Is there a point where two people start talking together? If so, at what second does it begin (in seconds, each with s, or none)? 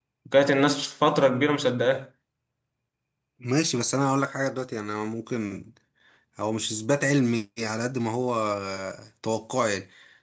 none